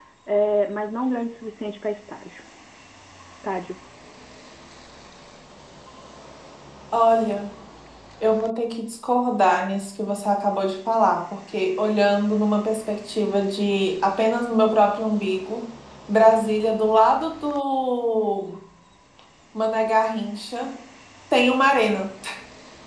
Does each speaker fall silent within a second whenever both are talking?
Yes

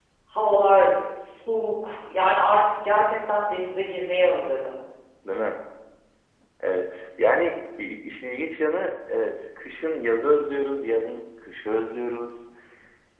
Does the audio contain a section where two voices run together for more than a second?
No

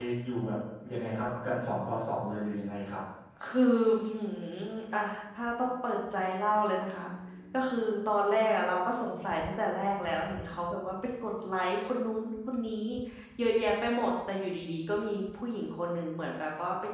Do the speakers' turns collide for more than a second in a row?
No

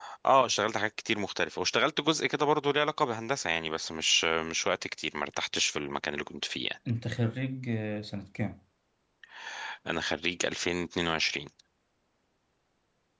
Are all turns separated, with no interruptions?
Yes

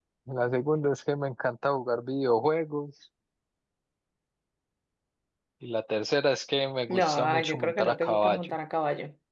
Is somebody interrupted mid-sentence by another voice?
Yes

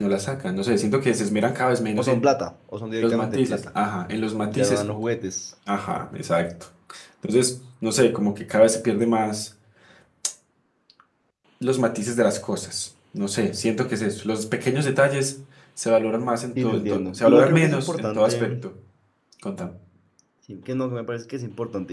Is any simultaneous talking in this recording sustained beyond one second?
Yes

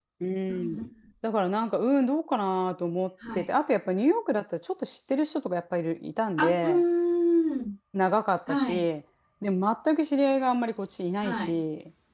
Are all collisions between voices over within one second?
Yes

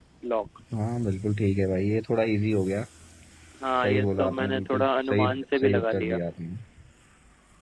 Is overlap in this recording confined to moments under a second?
No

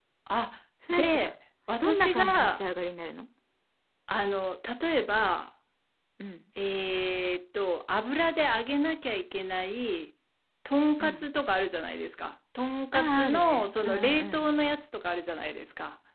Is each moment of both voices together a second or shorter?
No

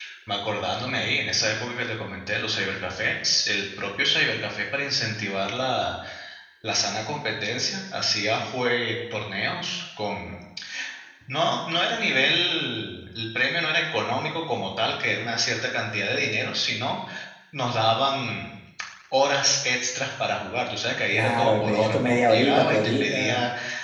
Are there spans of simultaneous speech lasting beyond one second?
Yes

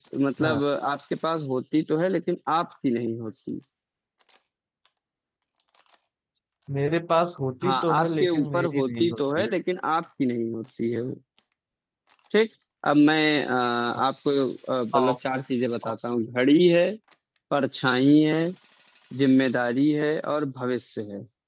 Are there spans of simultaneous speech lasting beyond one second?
Yes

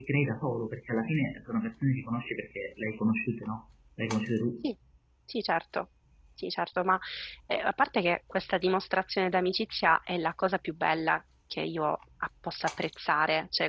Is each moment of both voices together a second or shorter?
Yes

